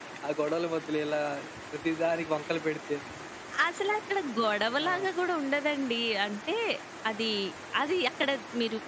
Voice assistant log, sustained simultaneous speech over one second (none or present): none